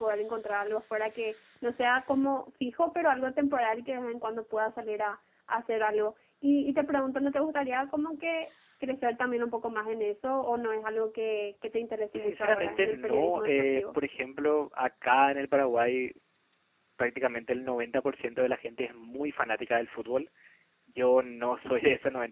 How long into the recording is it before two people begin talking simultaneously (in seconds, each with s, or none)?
12.1 s